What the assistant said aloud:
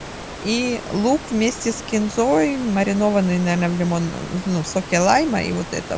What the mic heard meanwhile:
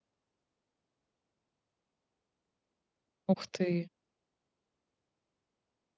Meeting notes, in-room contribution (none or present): present